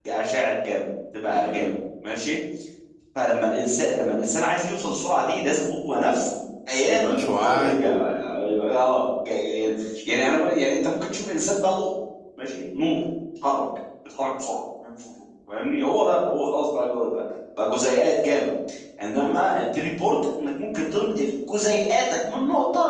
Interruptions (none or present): present